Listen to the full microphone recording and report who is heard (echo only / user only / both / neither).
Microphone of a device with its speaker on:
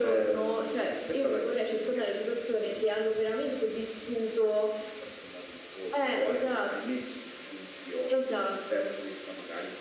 echo only